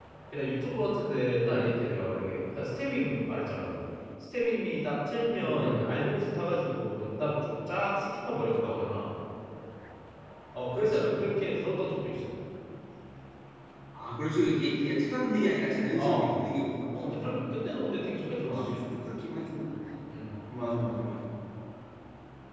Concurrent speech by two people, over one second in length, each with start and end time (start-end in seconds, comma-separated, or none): none